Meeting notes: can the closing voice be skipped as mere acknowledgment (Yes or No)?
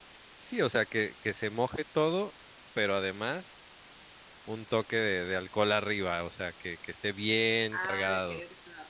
No